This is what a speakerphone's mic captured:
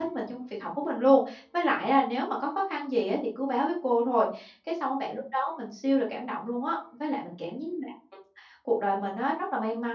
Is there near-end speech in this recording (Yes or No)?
Yes